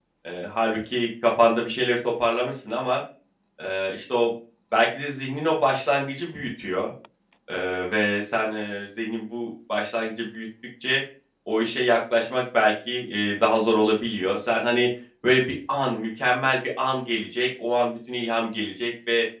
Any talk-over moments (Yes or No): No